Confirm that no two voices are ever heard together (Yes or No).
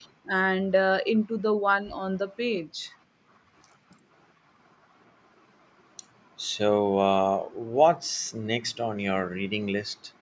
Yes